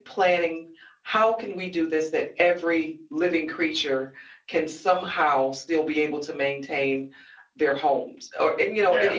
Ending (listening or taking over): listening